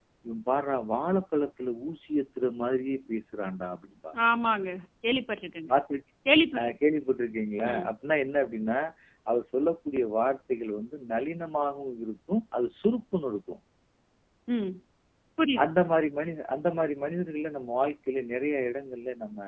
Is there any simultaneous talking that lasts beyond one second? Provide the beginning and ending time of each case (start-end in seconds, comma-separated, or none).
none